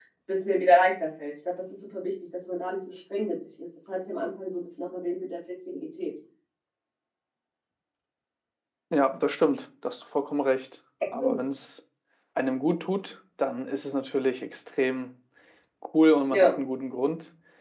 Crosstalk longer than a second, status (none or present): none